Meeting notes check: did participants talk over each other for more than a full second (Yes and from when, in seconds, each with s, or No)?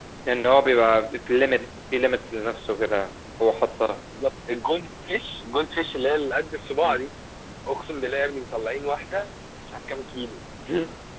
No